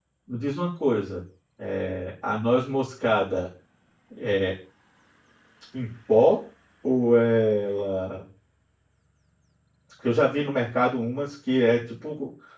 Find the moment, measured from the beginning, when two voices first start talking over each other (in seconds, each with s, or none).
none